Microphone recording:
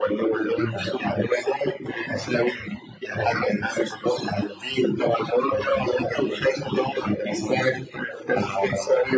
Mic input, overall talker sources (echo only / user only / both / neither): echo only